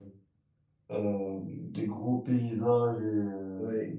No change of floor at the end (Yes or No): Yes